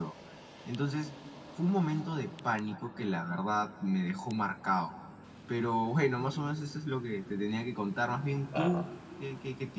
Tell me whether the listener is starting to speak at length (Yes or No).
No